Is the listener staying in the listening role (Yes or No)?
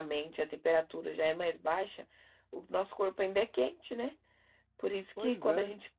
Yes